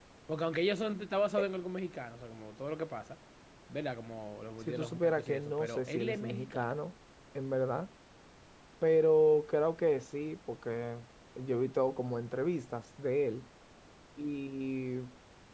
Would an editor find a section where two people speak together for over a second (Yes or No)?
Yes